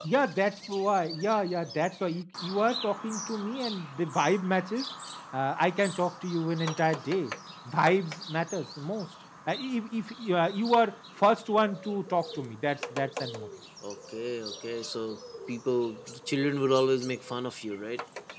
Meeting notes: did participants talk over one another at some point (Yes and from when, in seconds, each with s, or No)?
No